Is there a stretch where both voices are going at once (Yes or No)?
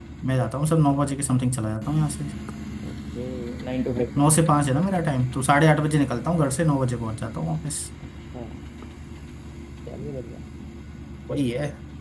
No